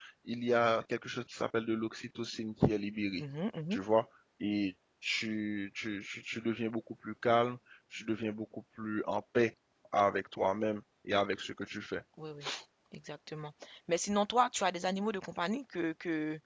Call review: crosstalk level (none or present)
none